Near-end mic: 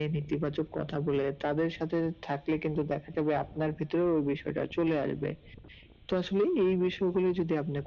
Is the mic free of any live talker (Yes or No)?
Yes